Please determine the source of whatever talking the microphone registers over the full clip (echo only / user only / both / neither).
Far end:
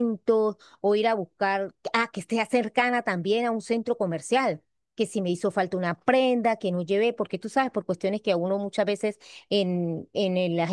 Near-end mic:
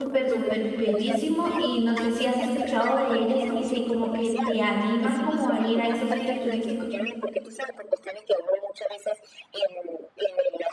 both